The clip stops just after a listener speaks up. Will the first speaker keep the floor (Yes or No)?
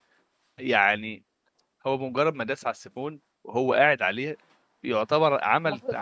Yes